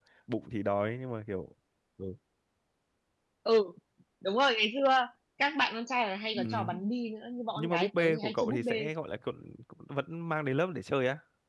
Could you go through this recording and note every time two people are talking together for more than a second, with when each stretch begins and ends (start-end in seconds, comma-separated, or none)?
7.6-8.9